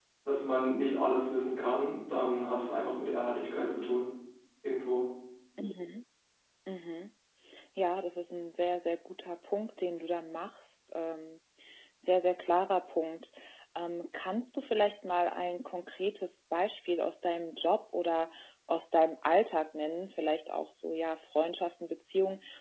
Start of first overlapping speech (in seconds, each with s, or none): none